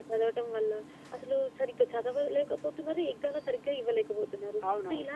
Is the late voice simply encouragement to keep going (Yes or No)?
Yes